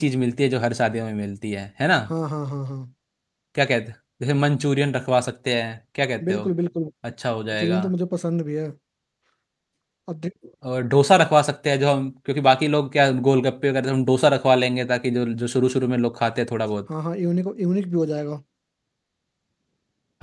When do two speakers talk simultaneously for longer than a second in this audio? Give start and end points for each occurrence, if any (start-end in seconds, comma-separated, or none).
none